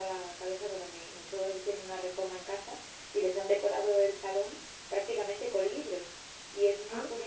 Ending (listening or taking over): listening